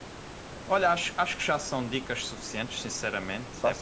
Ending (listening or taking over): listening